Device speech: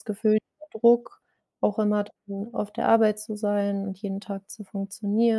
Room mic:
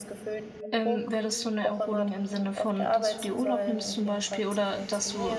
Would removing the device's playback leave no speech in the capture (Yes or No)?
No